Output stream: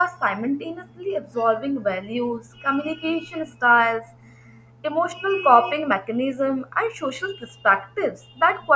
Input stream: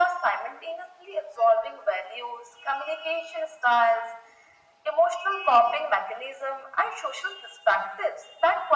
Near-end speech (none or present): none